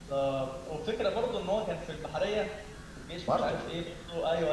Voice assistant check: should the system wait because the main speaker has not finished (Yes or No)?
Yes